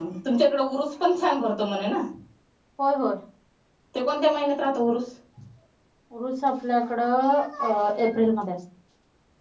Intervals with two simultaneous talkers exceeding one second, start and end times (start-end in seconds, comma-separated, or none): none